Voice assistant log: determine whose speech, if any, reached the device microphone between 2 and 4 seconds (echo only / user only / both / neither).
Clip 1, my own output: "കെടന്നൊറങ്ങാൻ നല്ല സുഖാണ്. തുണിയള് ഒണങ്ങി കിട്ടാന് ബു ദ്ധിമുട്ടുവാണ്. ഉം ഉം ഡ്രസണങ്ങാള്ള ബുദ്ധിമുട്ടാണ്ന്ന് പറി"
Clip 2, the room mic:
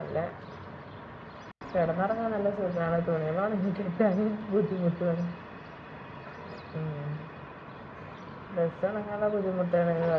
echo only